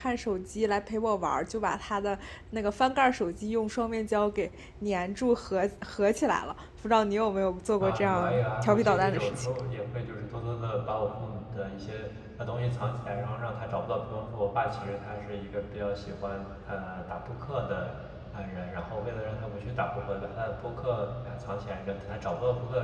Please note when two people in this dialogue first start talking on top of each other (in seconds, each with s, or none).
7.8 s